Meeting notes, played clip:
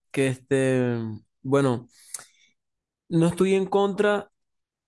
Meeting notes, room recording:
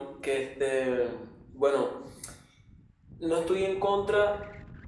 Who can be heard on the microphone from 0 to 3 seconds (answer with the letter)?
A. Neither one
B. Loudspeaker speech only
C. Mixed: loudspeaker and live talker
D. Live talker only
B